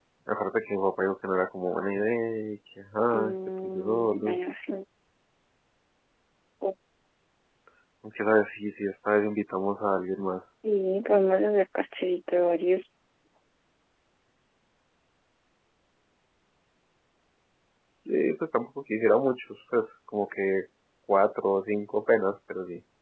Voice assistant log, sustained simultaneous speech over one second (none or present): present